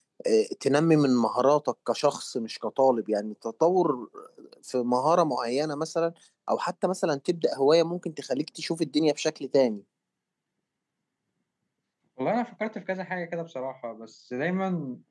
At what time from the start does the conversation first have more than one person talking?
none

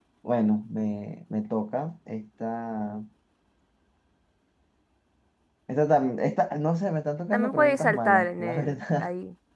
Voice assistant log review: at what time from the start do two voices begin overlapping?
7.3 s

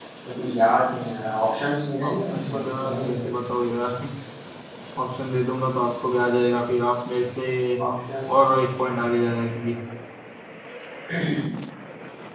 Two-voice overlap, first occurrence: 2.0 s

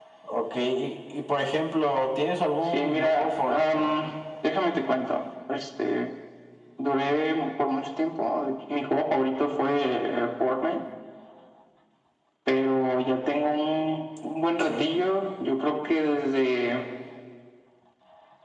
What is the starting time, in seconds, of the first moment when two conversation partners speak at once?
2.7 s

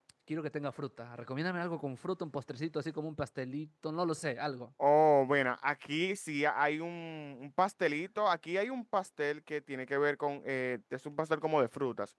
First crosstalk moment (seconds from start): none

